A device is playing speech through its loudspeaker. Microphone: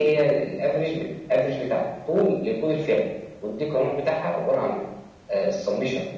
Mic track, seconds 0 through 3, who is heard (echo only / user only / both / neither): echo only